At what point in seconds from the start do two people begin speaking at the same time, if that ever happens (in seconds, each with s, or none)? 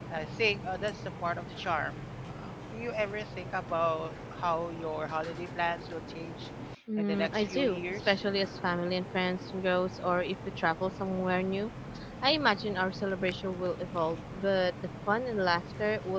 7.0 s